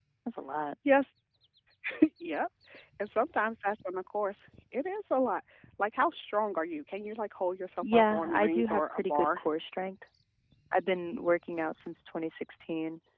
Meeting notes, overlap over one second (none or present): present